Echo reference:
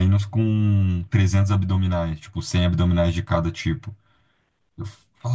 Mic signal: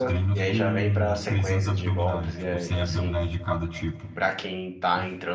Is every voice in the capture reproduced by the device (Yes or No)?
No